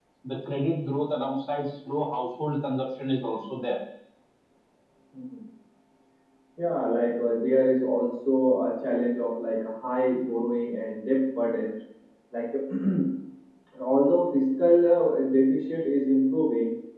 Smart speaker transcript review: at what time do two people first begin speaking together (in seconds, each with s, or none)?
none